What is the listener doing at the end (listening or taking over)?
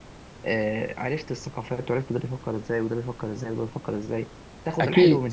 listening